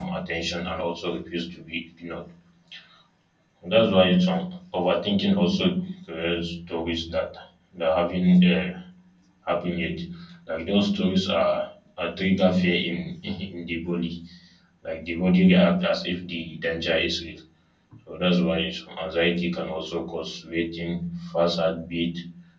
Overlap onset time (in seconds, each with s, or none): none